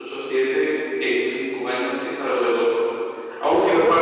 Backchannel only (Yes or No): Yes